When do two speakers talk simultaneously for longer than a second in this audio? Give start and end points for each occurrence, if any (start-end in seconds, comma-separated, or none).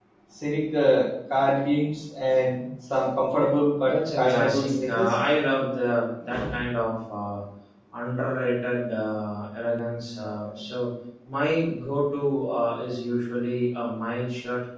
3.8-5.1